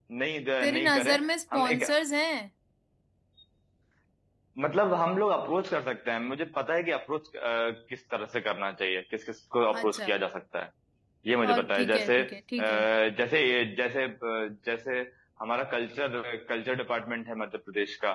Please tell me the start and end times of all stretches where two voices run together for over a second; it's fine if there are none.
0.6-1.8, 11.4-12.8

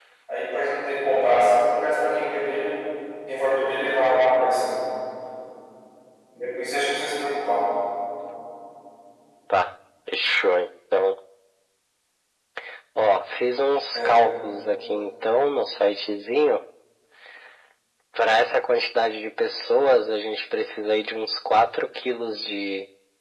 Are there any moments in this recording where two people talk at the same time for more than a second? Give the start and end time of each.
none

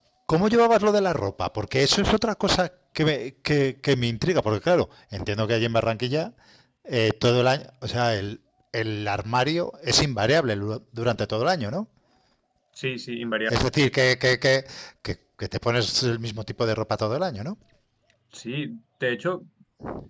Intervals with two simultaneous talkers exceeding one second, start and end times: none

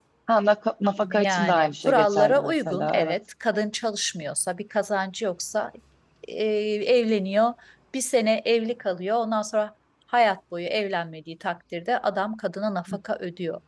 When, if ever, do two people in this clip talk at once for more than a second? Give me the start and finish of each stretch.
1.1-3.2

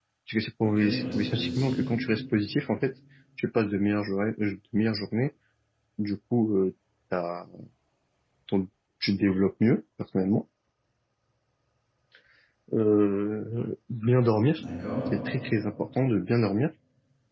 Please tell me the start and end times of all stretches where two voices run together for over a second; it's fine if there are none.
0.6-1.8

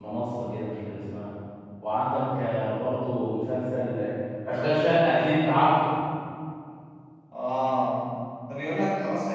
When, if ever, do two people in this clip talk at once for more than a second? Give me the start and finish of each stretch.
none

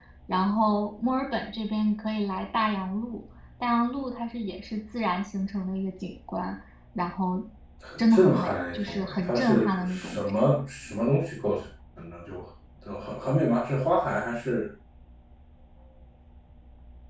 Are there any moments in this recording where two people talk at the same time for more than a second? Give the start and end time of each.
8.0-10.3

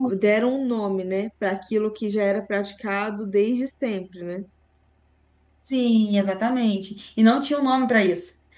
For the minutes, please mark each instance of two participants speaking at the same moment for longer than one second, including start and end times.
none

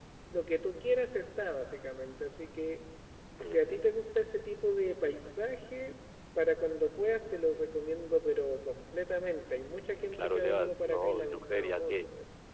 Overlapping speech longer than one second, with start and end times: 10.1-12.1

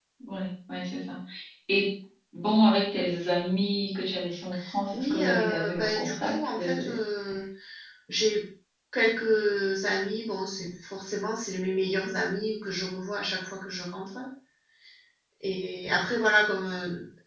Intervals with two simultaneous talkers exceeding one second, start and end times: 4.9-6.9

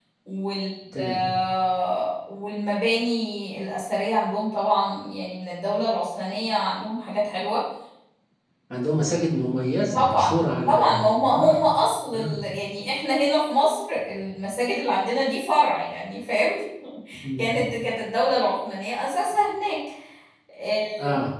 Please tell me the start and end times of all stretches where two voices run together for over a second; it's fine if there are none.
9.9-11.6

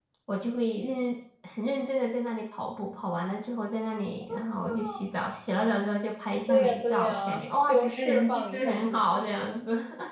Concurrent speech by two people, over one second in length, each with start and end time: 6.5-9.2

